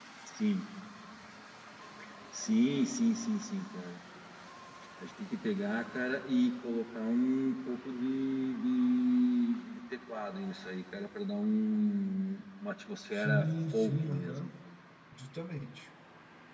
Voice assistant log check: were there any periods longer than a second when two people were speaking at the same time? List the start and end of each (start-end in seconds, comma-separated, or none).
13.2-14.5